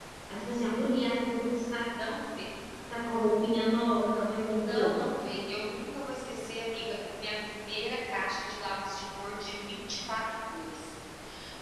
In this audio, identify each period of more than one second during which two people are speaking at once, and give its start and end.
none

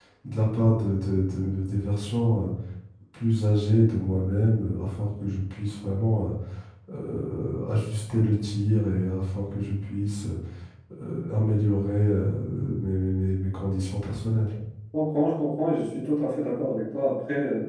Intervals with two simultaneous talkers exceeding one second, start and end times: none

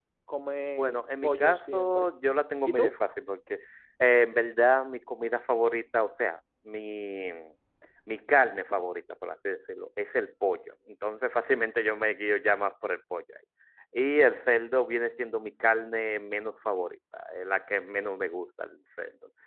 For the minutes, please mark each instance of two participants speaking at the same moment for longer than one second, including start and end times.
0.8-2.1

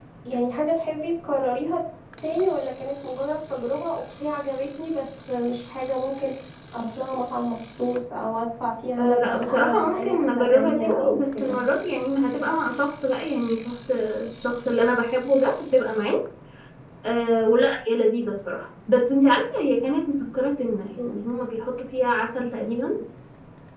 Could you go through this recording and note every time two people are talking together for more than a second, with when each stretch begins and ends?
9.0-11.6

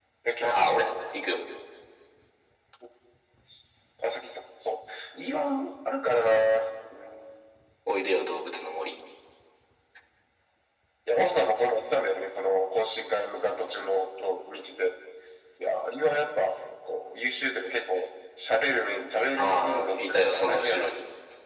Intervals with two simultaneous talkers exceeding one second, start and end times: 19.4-20.9

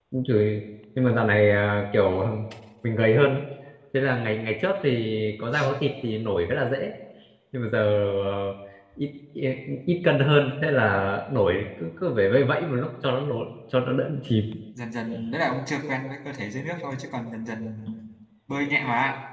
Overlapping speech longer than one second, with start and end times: none

